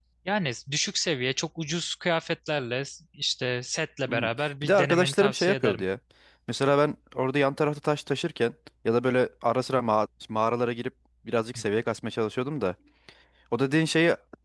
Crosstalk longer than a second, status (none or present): present